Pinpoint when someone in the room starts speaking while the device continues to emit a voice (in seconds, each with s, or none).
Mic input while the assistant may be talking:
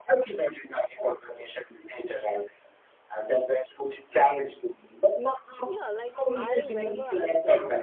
5.6 s